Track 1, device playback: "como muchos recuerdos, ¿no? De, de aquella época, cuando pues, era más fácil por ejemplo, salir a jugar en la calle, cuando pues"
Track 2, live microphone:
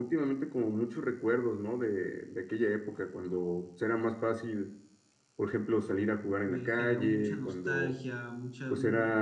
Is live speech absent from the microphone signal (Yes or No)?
No